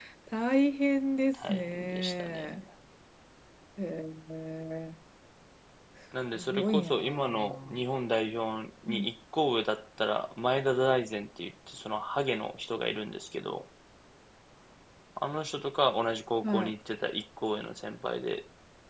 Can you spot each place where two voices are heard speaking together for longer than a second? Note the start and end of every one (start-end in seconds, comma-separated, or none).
1.3-2.6, 6.4-7.8